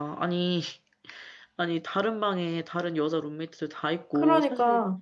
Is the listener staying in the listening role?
Yes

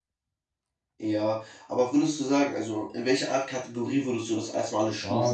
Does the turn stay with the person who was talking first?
No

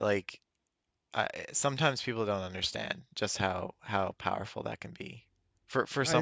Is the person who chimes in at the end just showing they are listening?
Yes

